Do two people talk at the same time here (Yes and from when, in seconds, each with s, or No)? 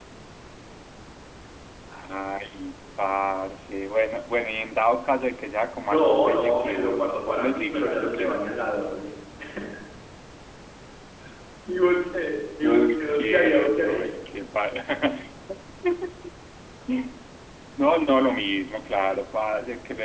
Yes, from 5.9 s